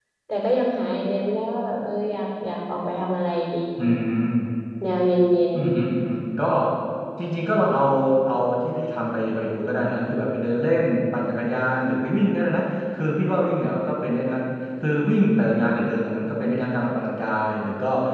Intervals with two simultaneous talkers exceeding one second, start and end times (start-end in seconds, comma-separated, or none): none